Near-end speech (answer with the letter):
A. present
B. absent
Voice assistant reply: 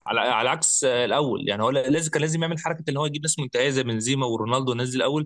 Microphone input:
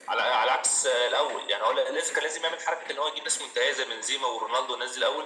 B